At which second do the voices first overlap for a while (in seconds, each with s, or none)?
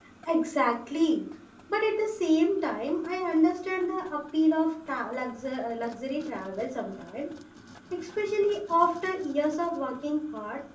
none